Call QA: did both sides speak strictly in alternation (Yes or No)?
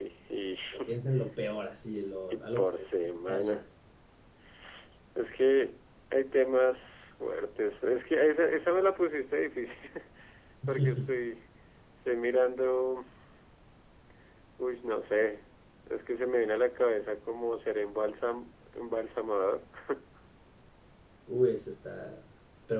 No